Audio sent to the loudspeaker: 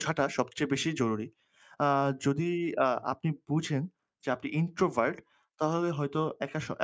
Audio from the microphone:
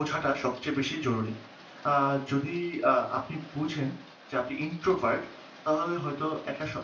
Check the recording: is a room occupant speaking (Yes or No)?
No